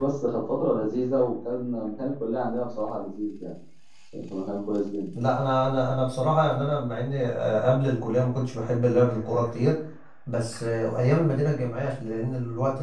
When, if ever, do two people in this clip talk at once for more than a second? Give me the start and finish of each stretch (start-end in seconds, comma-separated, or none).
none